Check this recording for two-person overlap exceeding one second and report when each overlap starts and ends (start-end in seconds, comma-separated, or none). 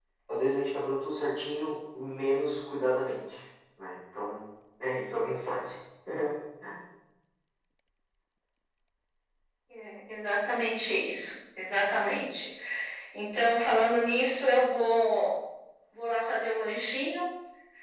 none